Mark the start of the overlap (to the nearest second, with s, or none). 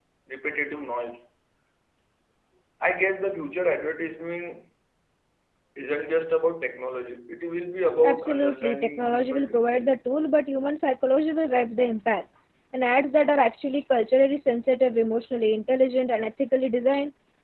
8 s